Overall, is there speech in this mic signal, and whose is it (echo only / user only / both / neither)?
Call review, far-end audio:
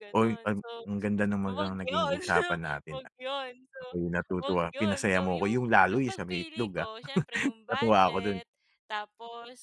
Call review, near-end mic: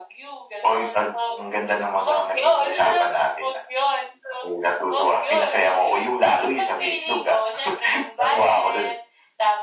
echo only